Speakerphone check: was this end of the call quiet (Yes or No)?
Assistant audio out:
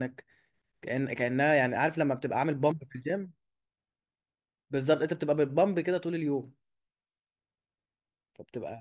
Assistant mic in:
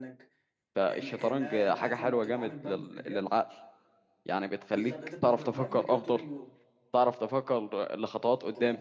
No